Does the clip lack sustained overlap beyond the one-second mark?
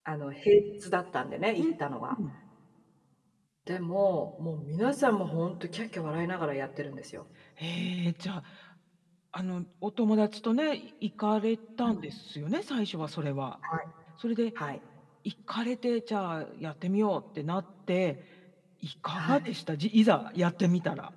Yes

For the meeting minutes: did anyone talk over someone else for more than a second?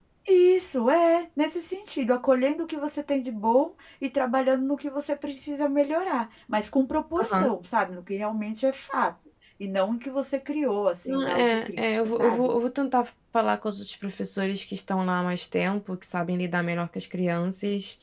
Yes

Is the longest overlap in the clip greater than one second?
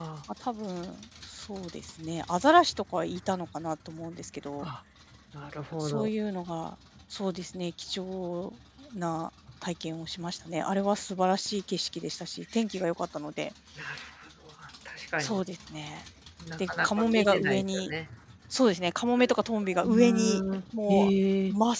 Yes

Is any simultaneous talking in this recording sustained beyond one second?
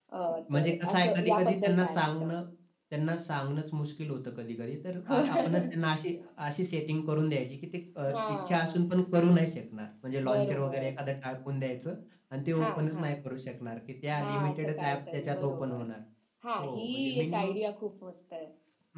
Yes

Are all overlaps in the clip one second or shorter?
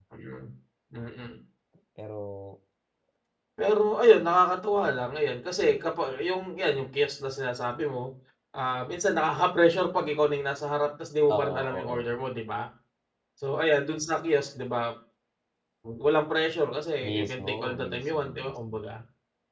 No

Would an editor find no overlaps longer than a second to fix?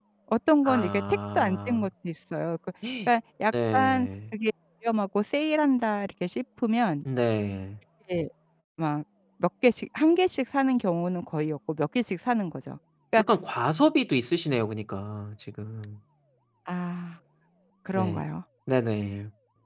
No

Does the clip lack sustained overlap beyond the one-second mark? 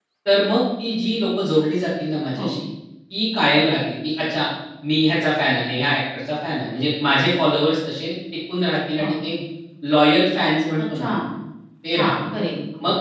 Yes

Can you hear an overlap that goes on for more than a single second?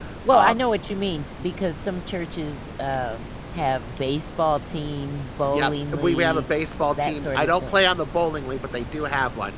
Yes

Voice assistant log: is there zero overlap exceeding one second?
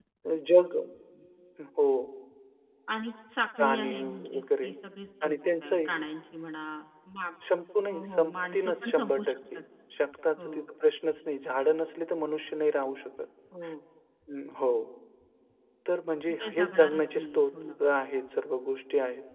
No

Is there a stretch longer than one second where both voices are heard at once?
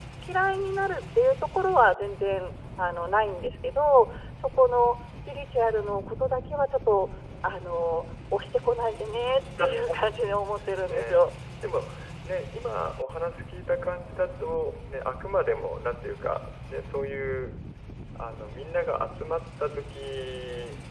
No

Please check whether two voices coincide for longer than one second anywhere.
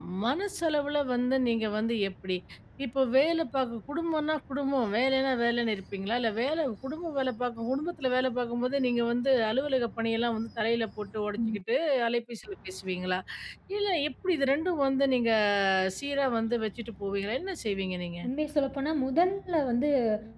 No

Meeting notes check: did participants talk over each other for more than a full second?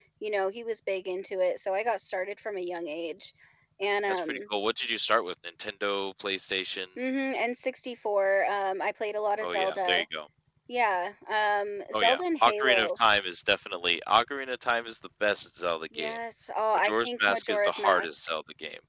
Yes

